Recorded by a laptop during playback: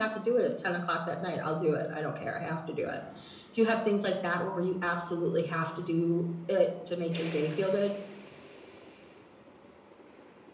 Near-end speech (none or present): none